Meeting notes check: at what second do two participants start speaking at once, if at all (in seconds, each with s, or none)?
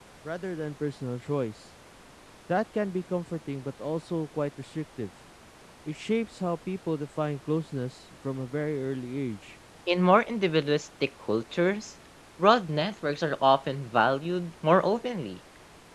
none